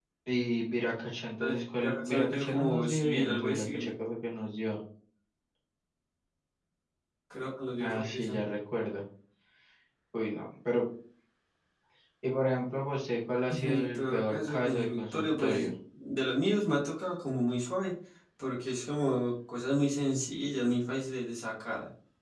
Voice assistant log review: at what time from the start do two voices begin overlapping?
1.4 s

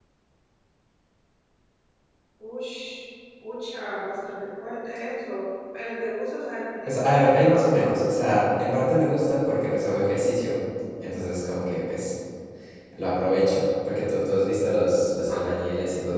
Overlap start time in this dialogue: 6.9 s

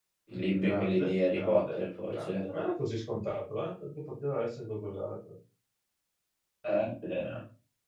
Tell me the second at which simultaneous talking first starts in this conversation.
0.6 s

